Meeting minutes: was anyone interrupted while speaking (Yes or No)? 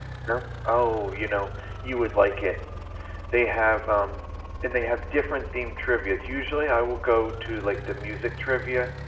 No